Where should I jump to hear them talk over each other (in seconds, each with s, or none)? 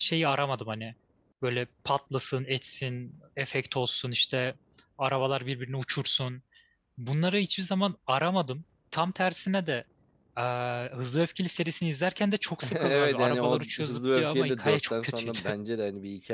12.6 s